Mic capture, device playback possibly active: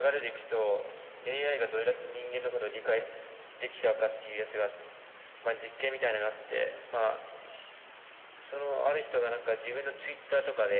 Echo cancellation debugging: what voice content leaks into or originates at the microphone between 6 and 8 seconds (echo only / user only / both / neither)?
echo only